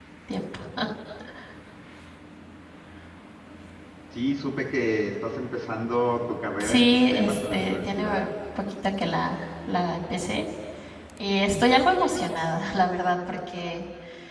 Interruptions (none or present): present